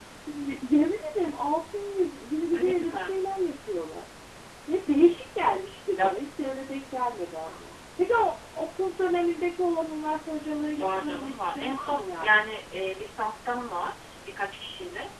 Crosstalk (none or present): present